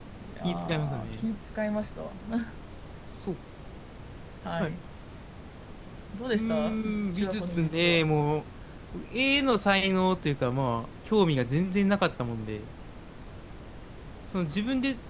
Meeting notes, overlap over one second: present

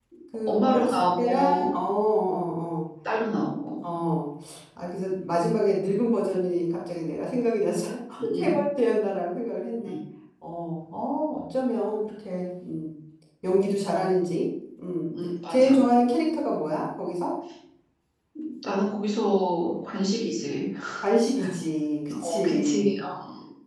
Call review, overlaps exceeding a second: present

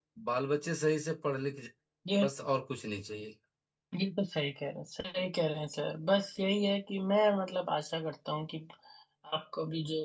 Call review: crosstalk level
none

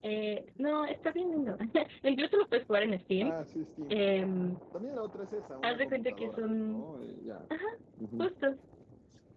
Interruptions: present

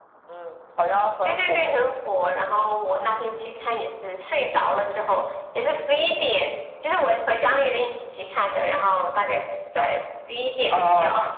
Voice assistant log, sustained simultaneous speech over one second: none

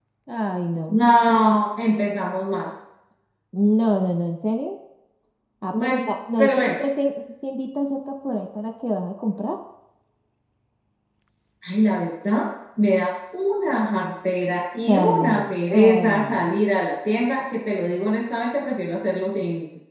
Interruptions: present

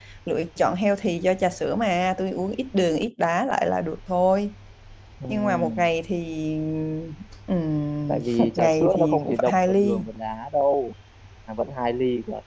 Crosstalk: present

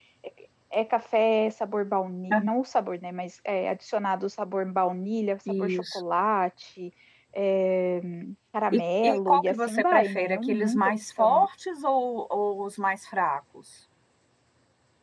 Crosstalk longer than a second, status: present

